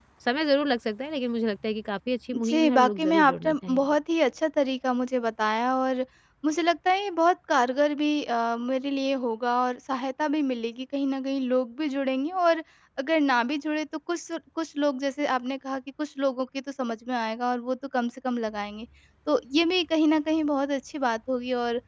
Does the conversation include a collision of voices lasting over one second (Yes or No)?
Yes